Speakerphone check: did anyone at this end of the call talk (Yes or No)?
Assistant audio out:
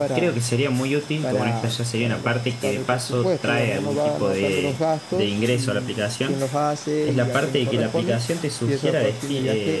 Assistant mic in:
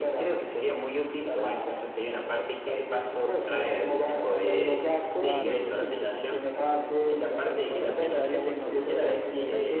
Yes